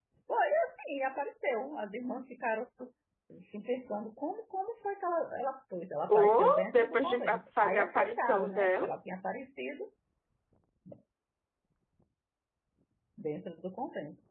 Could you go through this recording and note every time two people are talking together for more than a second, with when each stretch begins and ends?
6.2-8.9

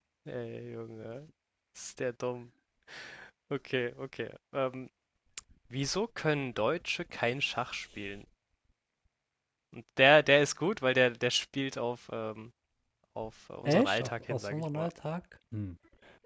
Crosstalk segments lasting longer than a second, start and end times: 13.7-14.9

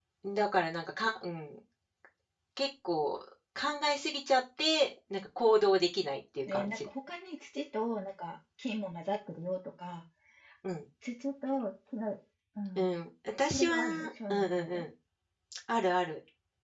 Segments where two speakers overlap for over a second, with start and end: 13.5-14.8

